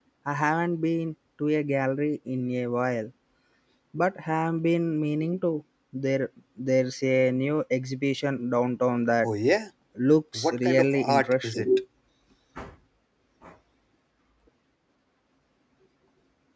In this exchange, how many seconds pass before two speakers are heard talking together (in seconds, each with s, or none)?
10.3 s